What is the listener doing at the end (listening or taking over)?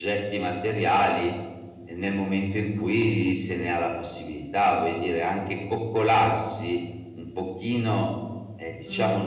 listening